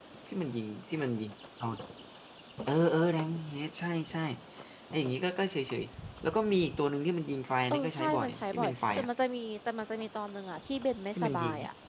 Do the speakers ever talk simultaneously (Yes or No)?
Yes